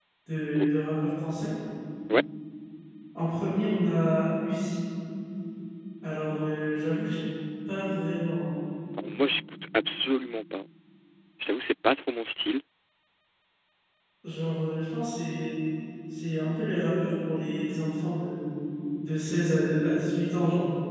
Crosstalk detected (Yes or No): No